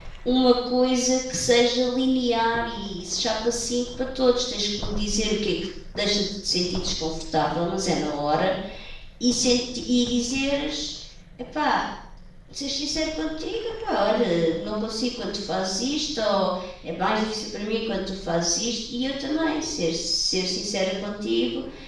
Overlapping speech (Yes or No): No